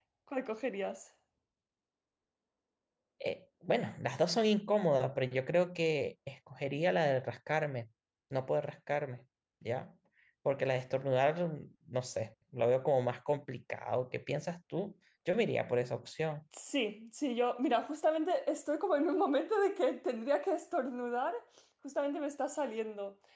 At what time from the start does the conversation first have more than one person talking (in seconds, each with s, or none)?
none